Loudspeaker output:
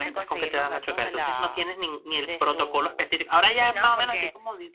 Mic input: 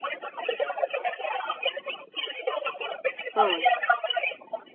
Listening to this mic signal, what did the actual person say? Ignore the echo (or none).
Mm.